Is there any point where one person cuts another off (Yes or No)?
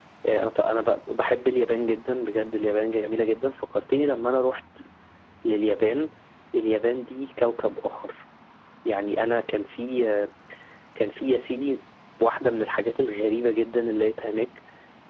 No